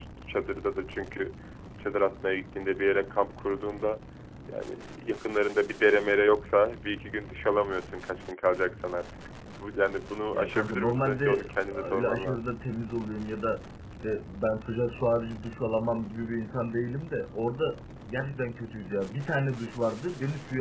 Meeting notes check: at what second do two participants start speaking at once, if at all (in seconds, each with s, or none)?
10.3 s